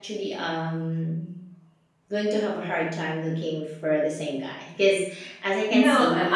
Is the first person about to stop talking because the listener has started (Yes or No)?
Yes